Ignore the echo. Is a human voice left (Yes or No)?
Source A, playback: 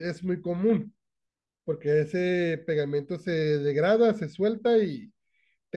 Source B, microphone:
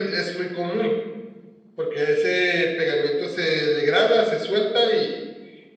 No